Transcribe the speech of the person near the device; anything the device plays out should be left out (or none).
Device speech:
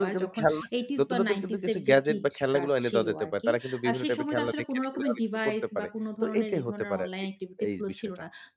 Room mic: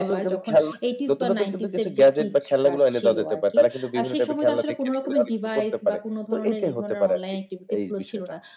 none